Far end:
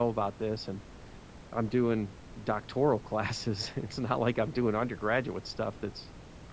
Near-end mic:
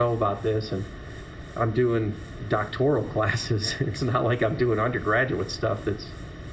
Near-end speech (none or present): none